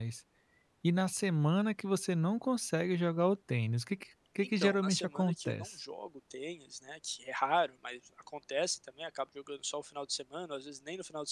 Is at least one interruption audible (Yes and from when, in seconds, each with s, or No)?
Yes, from 4.4 s